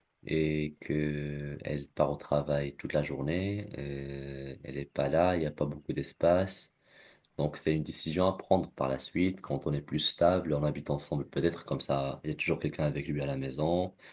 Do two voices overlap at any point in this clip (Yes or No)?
No